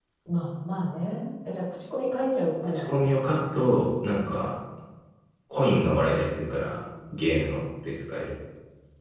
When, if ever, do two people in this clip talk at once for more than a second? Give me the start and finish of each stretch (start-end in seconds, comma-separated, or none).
none